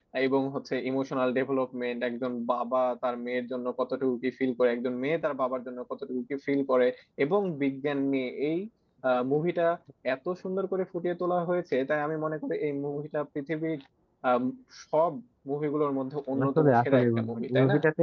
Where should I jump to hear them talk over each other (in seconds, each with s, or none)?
16.3 s